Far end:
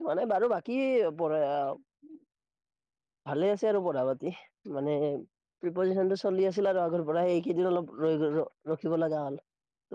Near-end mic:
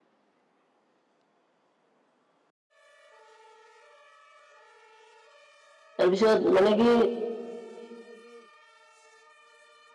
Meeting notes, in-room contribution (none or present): present